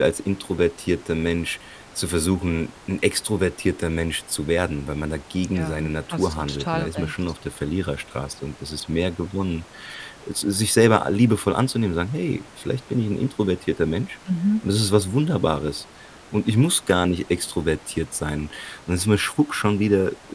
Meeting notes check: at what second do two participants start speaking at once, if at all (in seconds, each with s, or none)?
5.5 s